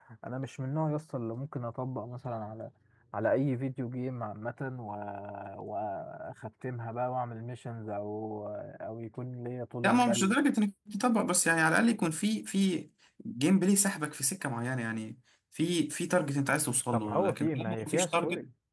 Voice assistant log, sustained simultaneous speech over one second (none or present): present